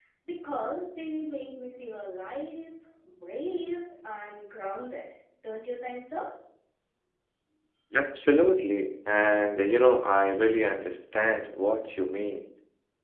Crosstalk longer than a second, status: none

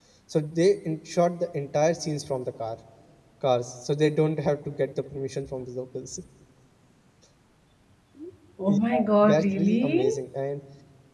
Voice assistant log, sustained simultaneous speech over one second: present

